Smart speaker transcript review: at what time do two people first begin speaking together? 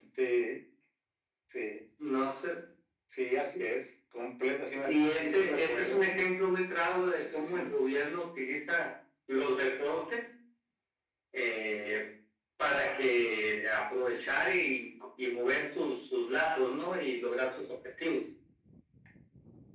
4.8 s

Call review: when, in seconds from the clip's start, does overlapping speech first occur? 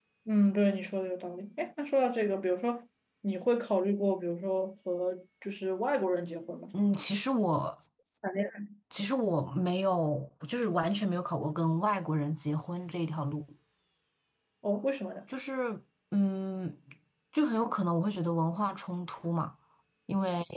none

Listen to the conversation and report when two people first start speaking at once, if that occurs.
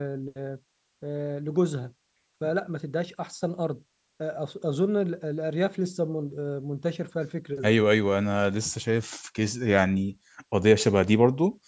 none

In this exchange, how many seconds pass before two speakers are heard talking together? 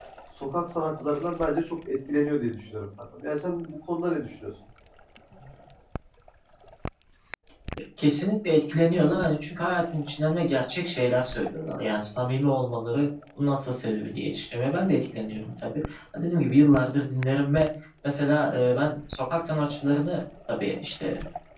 none

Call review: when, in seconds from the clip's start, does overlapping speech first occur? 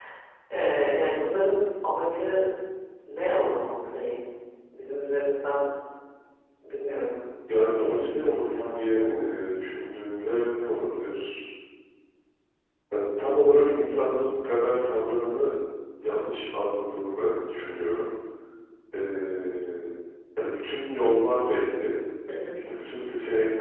7.8 s

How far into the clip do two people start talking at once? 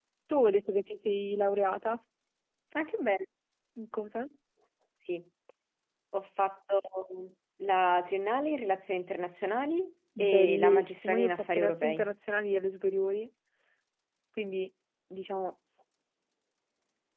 10.2 s

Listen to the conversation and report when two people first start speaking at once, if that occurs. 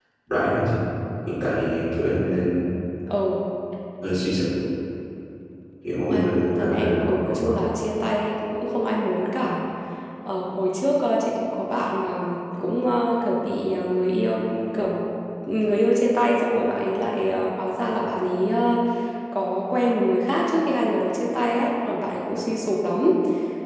6.1 s

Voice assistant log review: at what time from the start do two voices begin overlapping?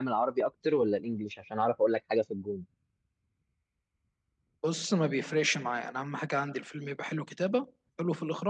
none

